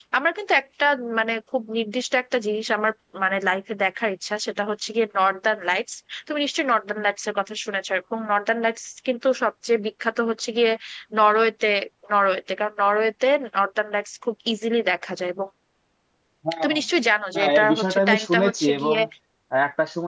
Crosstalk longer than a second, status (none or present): present